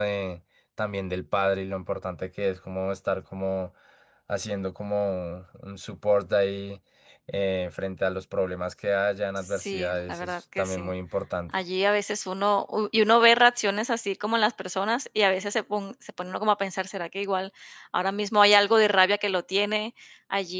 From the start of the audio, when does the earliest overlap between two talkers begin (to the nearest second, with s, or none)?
9 s